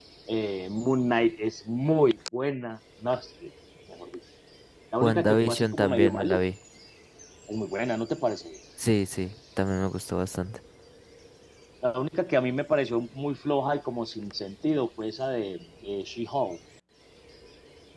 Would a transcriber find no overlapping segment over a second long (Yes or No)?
No